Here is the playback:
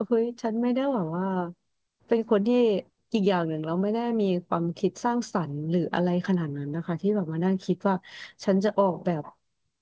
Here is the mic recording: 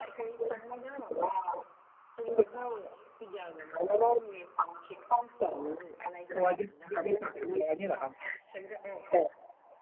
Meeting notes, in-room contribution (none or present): present